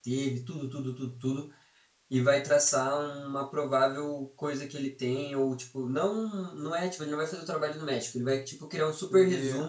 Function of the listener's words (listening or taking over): listening